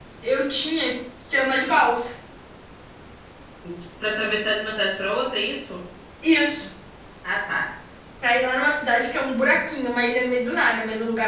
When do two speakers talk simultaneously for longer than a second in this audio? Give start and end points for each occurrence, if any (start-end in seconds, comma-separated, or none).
none